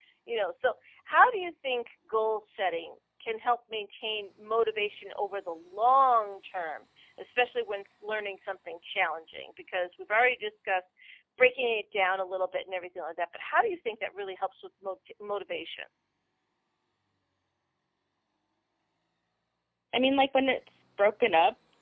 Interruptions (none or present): none